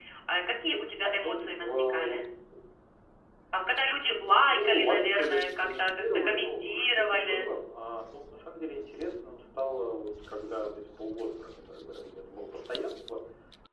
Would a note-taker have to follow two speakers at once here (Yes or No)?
Yes